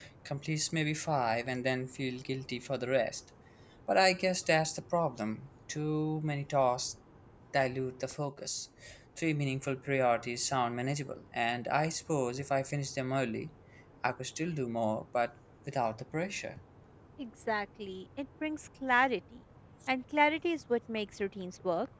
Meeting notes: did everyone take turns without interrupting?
Yes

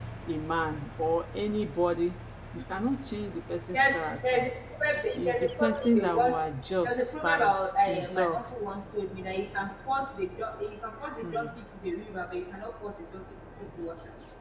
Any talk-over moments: Yes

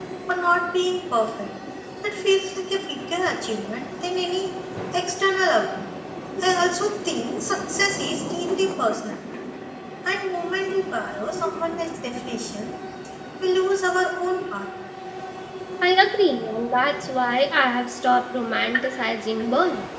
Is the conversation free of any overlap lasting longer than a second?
Yes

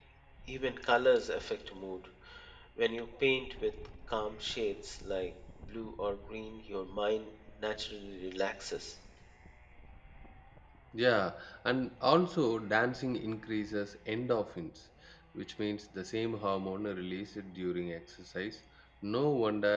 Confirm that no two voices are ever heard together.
Yes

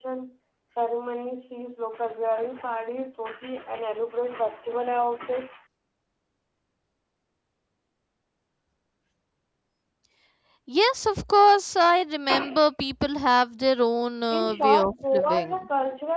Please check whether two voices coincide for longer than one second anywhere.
Yes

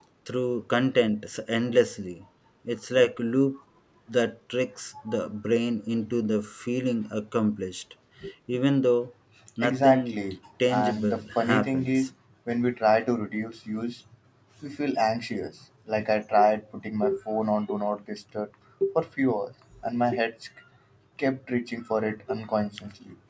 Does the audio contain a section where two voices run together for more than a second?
Yes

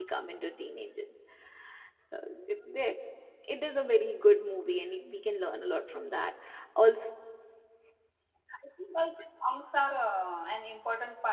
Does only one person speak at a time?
Yes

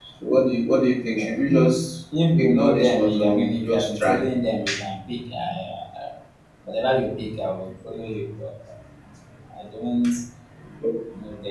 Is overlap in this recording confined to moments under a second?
No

